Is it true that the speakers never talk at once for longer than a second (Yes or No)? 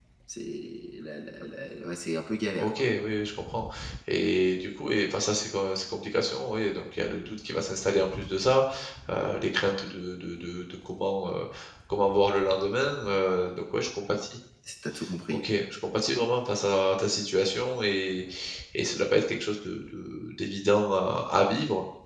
Yes